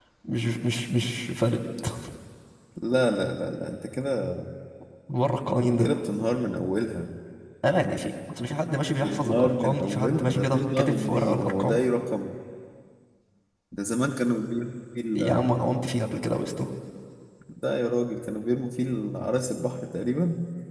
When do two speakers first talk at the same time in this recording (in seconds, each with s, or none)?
8.8 s